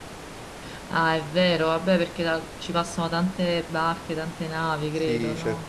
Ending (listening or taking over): taking over